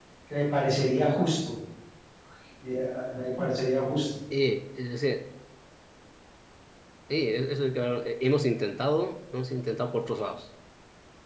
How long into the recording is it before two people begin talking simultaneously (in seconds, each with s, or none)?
none